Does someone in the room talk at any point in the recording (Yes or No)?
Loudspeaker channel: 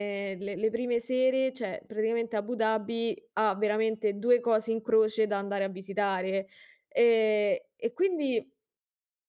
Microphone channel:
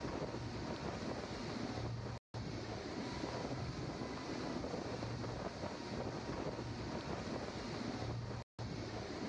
No